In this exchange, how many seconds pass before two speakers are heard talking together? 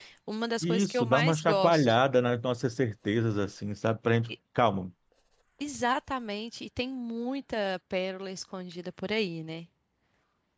1 s

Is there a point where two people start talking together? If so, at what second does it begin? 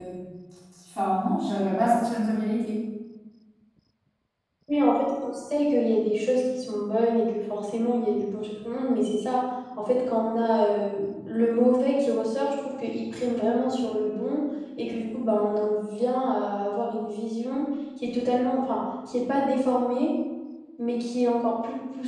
none

